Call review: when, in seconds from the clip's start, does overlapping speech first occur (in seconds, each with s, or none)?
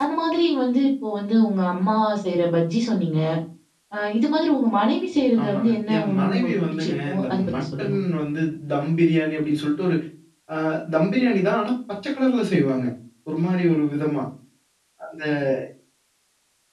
5.4 s